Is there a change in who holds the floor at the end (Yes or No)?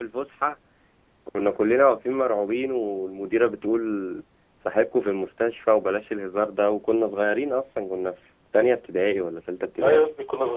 Yes